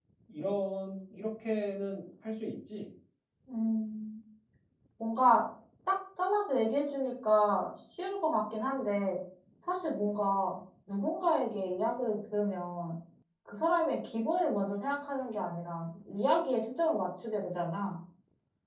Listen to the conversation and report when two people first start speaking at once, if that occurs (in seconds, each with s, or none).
none